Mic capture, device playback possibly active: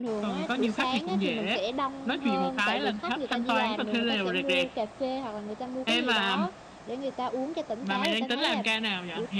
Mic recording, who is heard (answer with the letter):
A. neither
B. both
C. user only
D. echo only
B